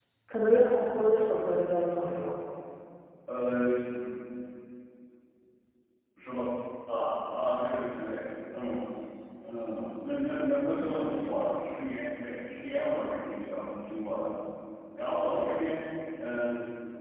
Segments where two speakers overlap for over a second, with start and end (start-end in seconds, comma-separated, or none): none